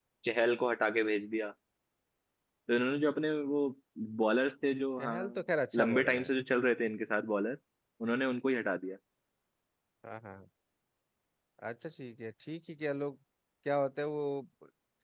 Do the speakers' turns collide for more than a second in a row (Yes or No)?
No